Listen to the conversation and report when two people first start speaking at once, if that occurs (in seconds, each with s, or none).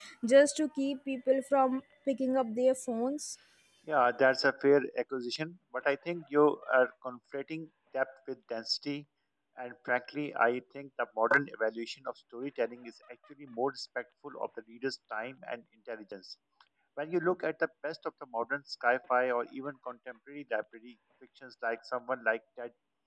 none